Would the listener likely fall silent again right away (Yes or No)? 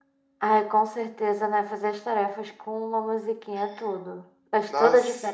No